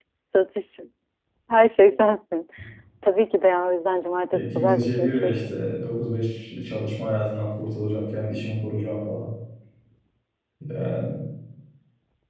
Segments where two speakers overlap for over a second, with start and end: 4.3-5.5

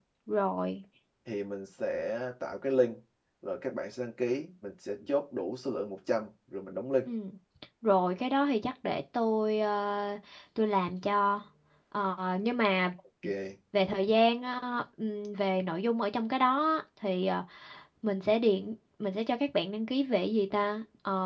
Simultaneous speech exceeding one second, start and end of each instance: none

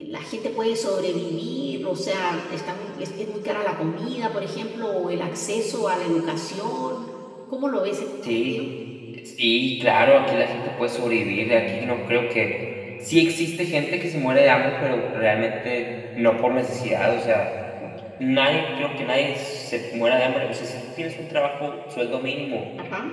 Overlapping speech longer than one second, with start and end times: none

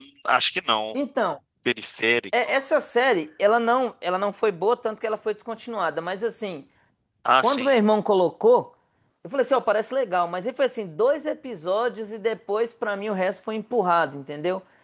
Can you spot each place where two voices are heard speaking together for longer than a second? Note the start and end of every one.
none

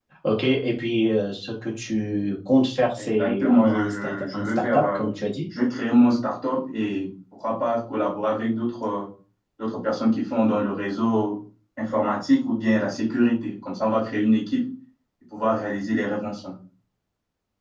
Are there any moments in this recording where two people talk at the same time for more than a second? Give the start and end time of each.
3.0-5.0

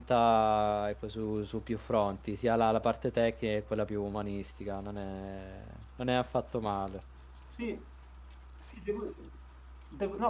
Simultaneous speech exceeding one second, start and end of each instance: none

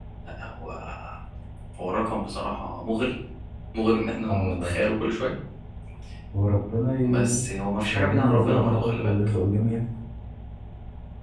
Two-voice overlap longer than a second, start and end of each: 7.9-9.1

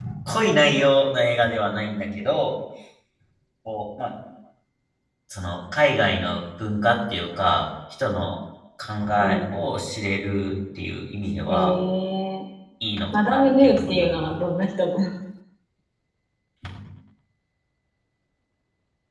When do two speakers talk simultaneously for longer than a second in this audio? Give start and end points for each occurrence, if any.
13.1-14.4

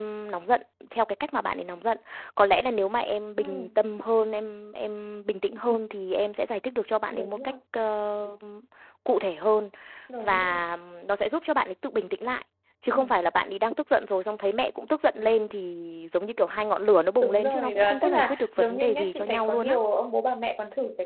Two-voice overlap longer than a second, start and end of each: 17.2-19.8

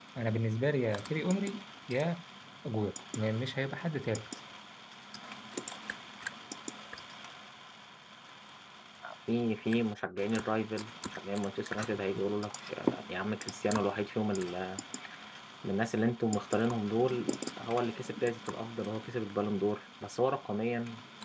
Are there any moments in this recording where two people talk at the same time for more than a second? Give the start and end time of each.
none

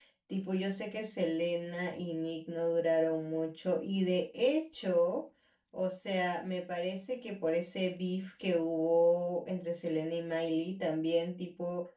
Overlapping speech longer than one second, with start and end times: none

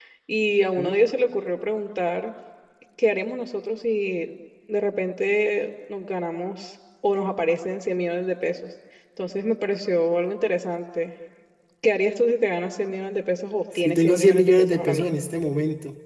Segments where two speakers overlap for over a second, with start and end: 13.8-15.2

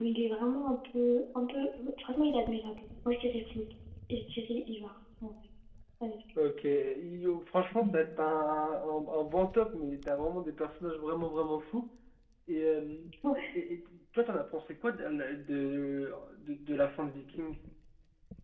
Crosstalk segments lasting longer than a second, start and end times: none

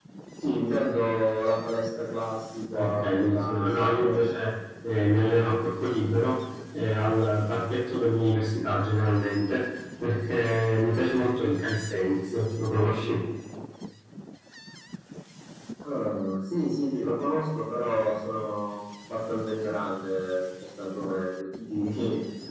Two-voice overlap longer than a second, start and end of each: 2.8-4.3

